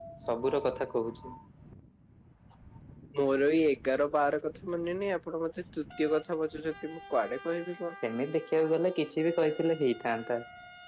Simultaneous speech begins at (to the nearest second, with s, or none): none